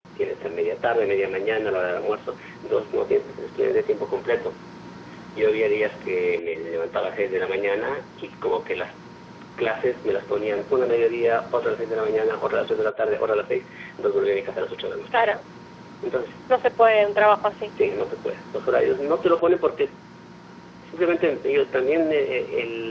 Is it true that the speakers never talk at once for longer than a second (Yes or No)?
Yes